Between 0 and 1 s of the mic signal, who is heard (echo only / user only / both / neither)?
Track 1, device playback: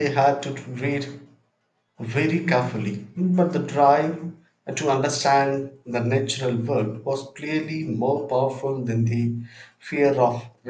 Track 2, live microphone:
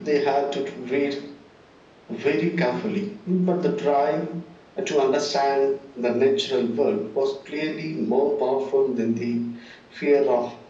echo only